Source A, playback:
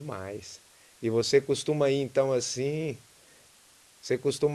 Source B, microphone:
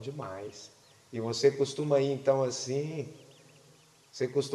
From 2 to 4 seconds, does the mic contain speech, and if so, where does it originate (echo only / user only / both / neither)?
echo only